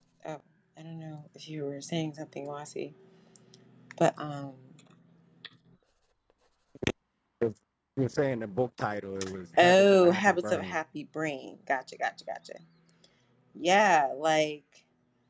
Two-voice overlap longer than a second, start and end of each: 9.6-10.8

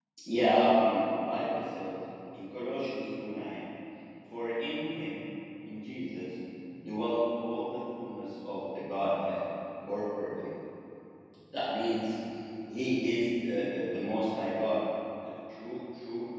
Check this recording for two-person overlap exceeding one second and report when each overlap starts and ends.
none

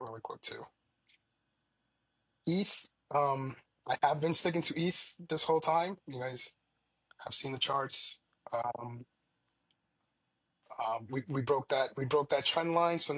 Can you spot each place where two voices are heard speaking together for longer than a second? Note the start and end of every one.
none

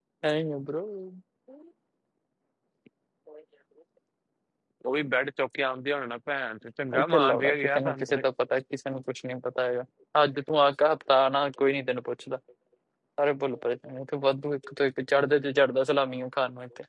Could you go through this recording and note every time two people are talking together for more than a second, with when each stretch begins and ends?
7.0-8.2

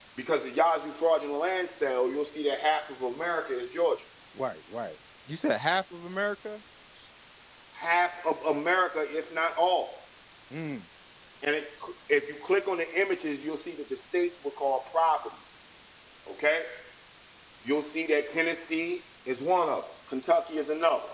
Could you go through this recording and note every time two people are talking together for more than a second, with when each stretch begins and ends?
none

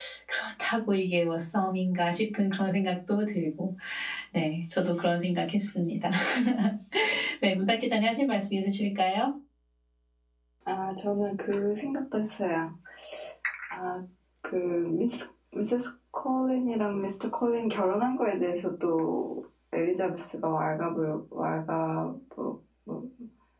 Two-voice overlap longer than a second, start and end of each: none

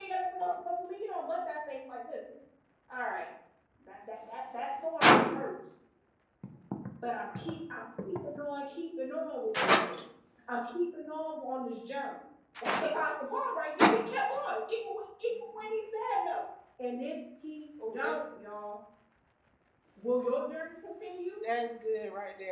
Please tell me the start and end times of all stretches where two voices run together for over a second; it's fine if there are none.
none

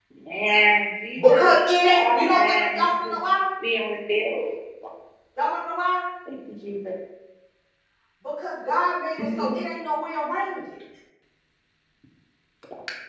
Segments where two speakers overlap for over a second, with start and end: 1.9-3.1

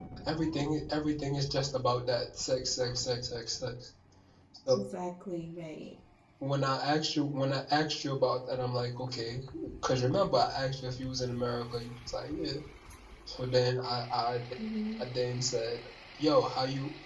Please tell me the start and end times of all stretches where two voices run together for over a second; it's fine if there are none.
none

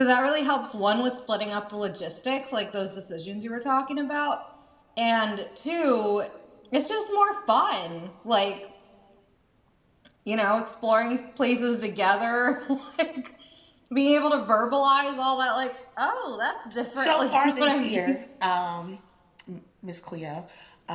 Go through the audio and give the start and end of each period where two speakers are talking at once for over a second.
16.9-18.2

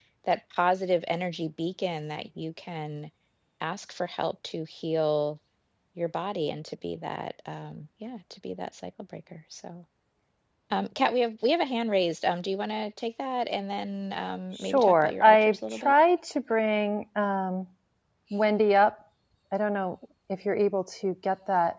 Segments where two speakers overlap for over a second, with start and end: 14.5-15.9

